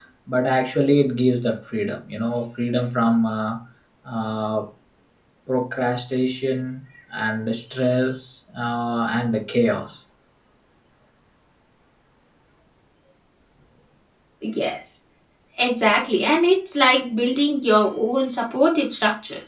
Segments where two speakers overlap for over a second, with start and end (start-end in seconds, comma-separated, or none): none